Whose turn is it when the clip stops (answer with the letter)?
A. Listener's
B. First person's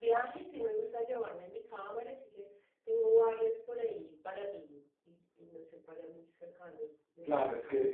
A